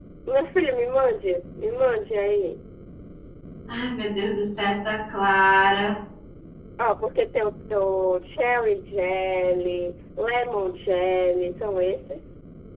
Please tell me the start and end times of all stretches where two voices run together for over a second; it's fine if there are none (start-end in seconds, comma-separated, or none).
none